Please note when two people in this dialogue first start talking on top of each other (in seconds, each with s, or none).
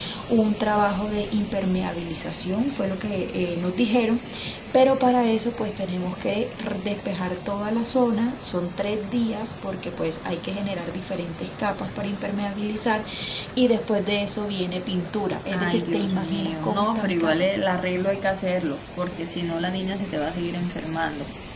15.5 s